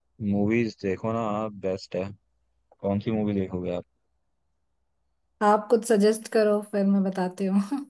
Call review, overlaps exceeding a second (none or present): none